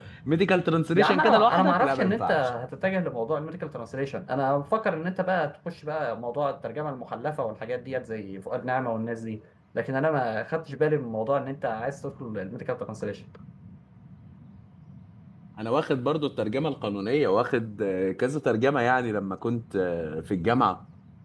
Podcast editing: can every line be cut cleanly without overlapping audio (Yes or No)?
No